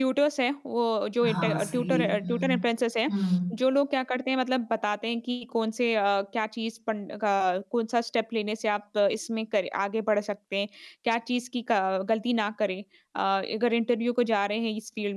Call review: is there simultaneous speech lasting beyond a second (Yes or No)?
Yes